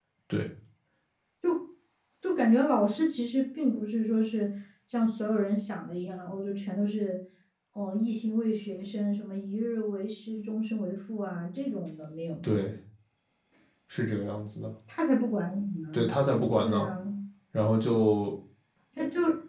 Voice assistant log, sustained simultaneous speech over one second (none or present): none